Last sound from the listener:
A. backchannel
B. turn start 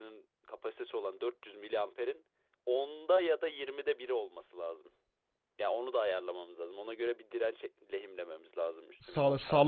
B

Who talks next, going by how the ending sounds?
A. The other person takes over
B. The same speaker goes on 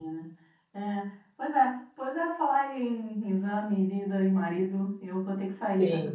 B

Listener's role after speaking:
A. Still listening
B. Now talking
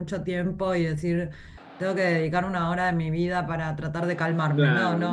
B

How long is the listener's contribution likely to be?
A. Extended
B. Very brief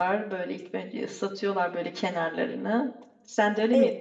B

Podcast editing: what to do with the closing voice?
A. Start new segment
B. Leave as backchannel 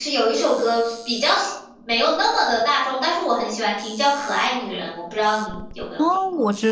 A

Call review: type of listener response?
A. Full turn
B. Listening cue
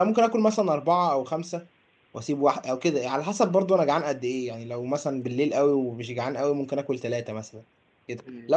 B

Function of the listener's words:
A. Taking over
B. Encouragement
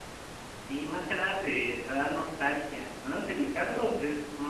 B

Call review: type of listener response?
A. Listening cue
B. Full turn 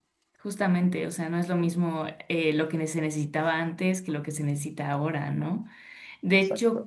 A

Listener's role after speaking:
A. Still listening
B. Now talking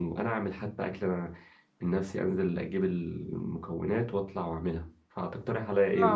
B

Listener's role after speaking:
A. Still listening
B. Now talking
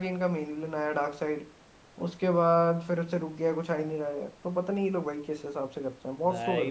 B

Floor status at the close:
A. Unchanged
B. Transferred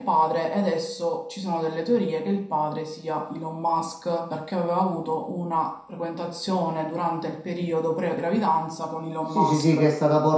B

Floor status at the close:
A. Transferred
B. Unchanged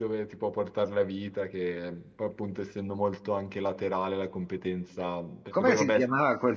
A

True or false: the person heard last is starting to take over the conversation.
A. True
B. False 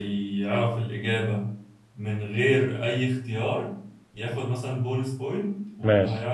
B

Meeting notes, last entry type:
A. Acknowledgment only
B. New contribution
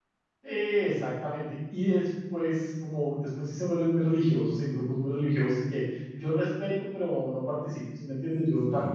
A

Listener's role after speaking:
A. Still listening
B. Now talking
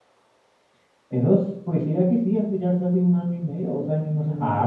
B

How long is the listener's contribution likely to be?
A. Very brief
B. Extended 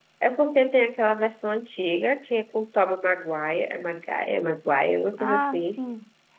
B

